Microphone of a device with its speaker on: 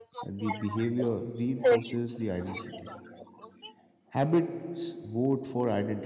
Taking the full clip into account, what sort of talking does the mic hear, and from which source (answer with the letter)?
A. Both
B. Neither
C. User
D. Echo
A